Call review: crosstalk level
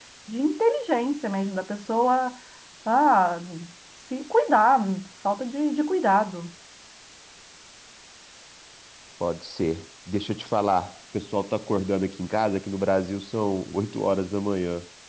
none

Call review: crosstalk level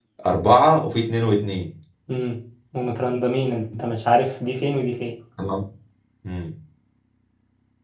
none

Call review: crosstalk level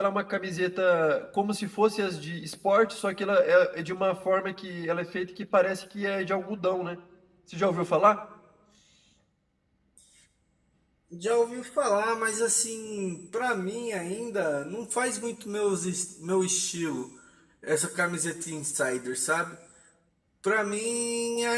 none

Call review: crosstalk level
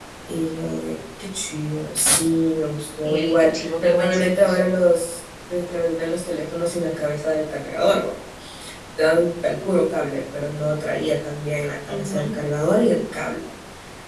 present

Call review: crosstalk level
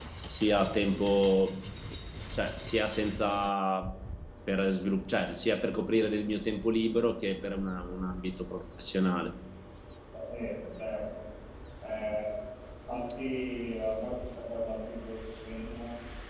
none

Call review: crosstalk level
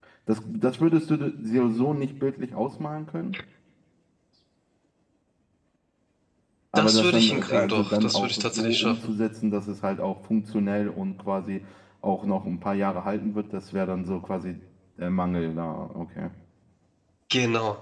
present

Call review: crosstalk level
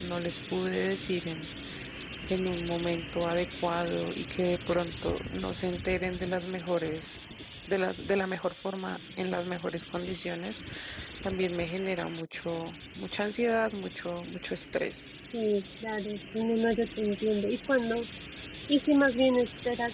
none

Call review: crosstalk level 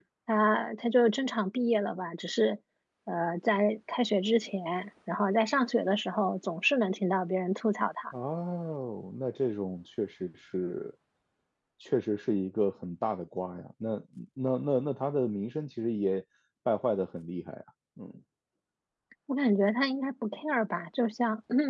none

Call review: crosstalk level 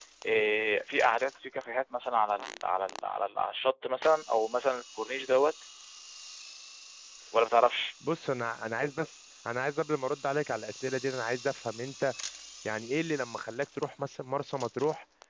none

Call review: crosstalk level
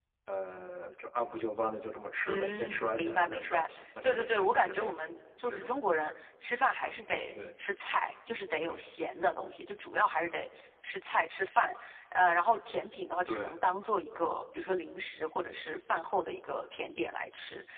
present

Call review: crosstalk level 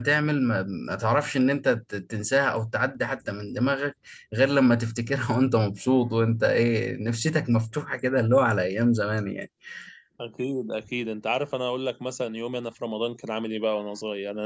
none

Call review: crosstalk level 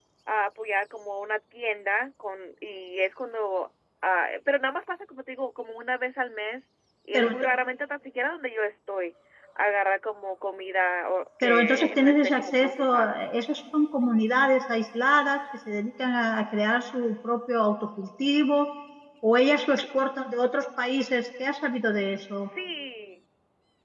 present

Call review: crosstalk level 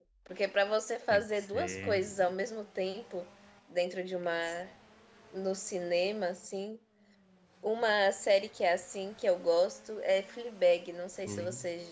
present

